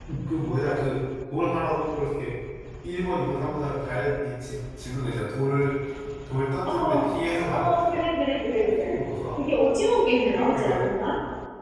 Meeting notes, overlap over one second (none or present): none